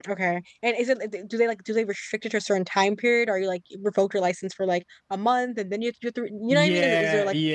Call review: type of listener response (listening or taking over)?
taking over